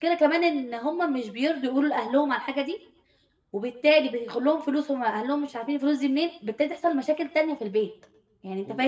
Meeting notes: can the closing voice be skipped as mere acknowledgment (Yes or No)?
Yes